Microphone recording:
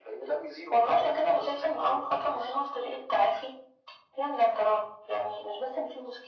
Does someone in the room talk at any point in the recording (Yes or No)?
No